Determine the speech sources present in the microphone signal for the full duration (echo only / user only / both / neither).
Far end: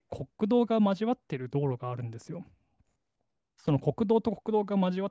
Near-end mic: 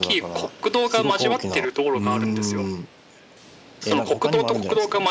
both